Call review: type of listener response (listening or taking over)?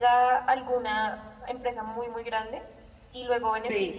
listening